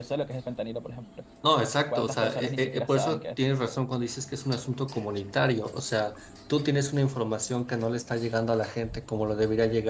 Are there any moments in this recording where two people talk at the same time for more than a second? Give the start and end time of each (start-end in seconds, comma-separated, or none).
1.9-3.2